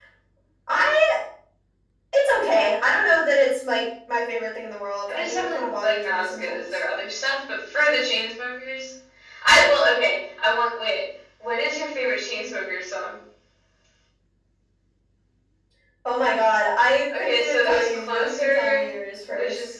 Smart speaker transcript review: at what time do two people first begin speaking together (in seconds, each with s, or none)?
5.1 s